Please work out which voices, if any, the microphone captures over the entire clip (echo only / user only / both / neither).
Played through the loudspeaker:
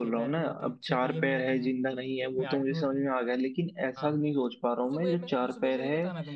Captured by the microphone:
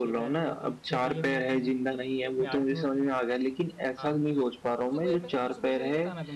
echo only